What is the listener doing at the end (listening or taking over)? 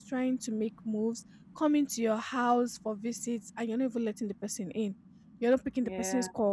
listening